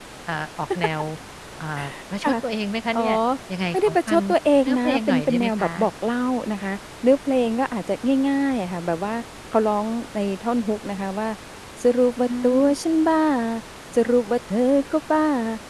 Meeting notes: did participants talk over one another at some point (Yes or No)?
Yes